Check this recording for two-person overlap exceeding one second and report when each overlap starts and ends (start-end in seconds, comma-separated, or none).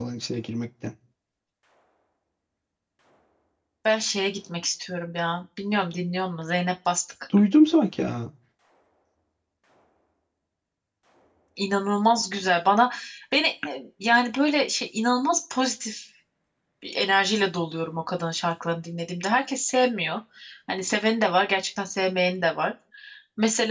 none